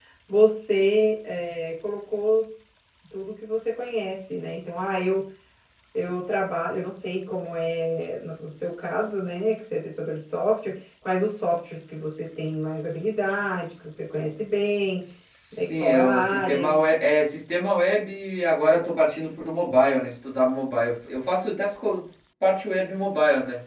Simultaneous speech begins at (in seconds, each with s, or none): 15.6 s